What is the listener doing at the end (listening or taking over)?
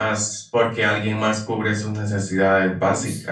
listening